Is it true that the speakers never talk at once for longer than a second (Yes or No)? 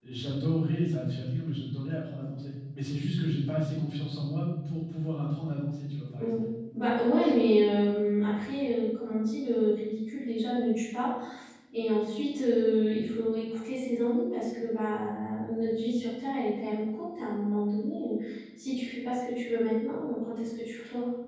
Yes